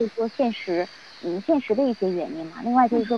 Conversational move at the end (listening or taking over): listening